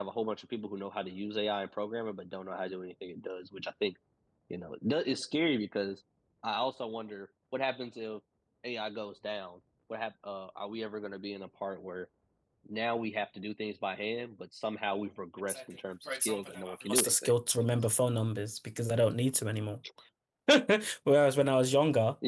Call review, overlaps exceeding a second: present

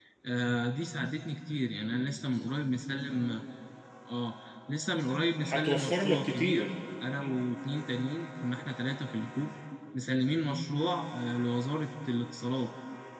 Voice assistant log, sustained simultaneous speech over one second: present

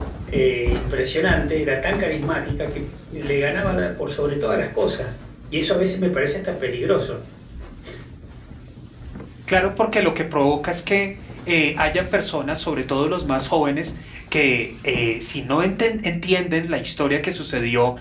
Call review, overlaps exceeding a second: none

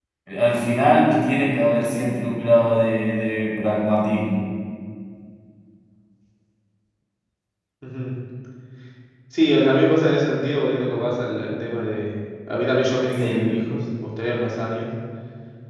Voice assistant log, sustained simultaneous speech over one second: none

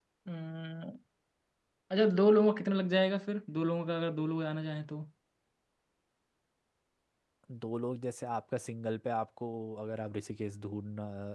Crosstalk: none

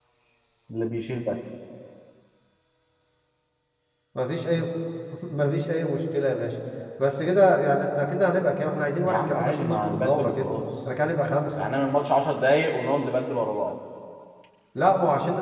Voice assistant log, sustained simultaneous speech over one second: present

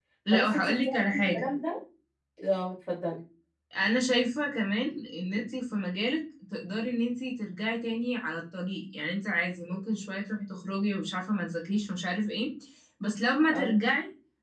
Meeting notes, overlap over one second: present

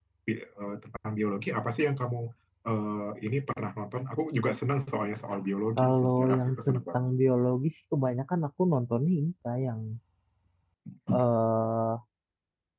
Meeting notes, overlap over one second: present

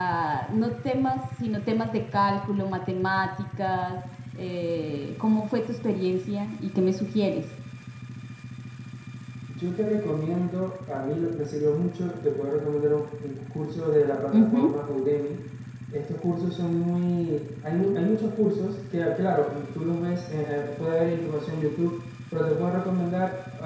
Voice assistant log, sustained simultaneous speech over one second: none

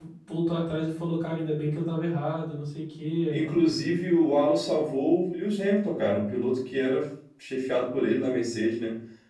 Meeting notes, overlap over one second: none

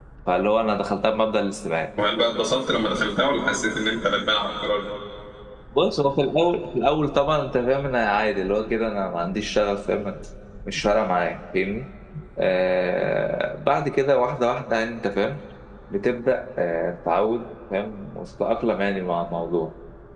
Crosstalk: none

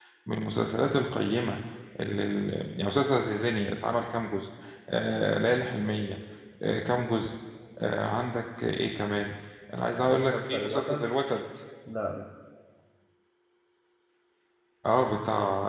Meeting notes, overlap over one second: present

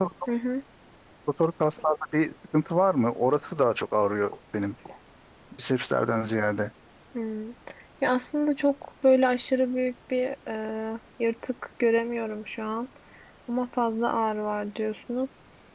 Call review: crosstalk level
none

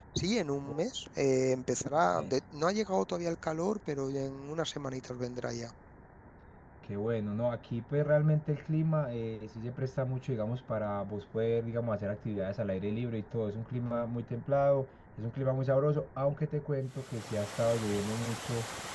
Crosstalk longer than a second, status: none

